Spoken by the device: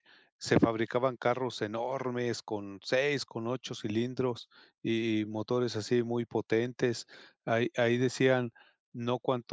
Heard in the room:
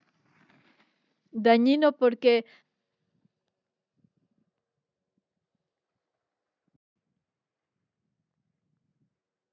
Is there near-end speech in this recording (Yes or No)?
Yes